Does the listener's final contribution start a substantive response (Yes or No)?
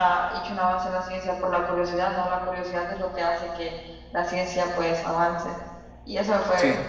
No